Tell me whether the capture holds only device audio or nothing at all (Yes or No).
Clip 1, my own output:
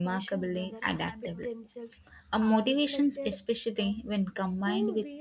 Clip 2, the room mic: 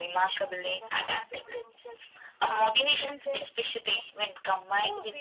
Yes